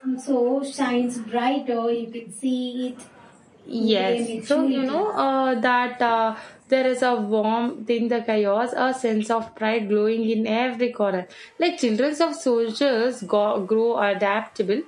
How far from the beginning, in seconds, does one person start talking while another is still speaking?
3.8 s

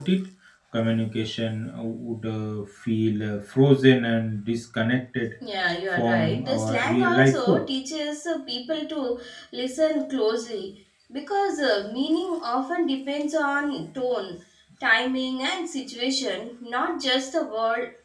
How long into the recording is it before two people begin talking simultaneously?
5.9 s

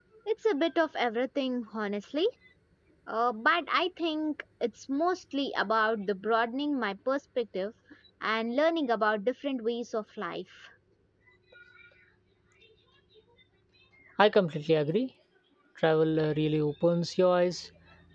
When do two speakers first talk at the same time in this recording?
none

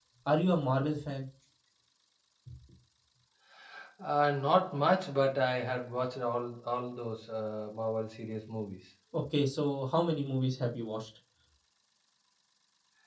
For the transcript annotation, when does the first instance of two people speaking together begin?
none

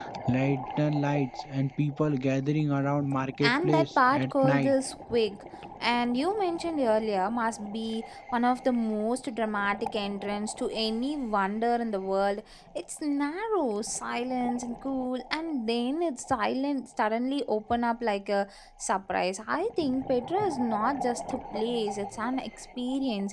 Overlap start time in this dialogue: 3.4 s

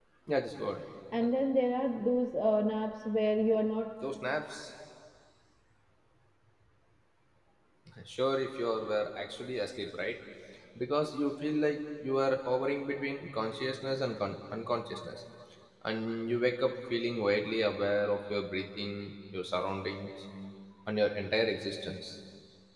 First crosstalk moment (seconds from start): none

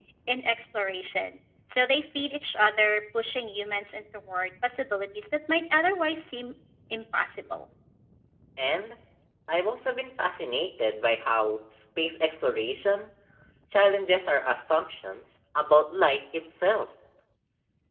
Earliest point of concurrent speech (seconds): none

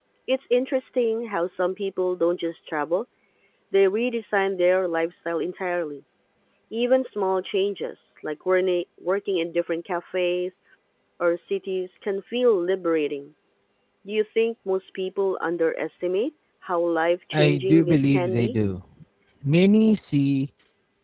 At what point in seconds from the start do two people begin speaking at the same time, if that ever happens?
17.3 s

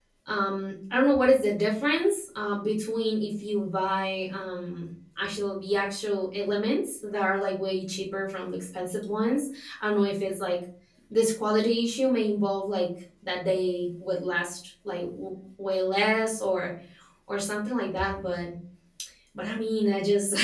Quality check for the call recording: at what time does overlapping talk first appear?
none

